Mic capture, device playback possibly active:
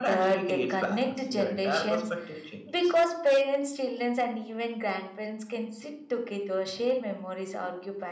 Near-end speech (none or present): none